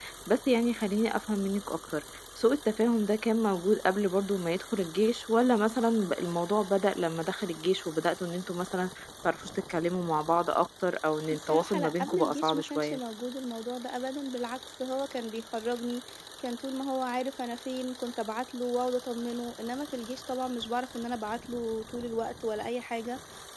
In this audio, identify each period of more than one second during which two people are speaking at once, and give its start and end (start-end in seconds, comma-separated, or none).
11.3-13.0